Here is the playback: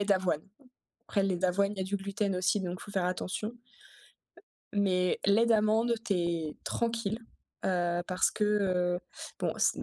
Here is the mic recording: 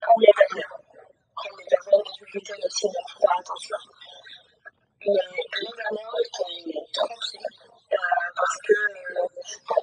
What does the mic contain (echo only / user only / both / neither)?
echo only